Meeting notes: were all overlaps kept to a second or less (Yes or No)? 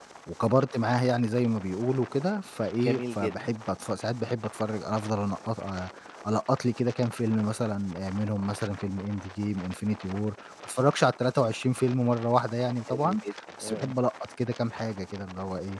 Yes